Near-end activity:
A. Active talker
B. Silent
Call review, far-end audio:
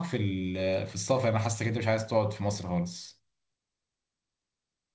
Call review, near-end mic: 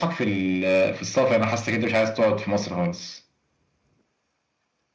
B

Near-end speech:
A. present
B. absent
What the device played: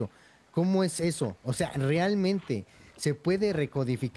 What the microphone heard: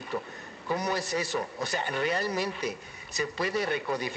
B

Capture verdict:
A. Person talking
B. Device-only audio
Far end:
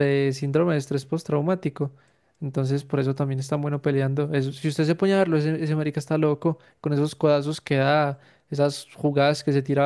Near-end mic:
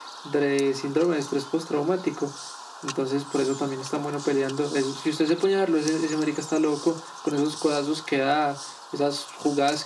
B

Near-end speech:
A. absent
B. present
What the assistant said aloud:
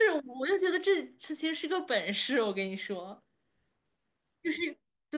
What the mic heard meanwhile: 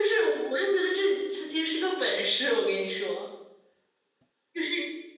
A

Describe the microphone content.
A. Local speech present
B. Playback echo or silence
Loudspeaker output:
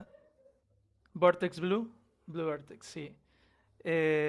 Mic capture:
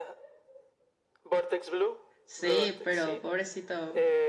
A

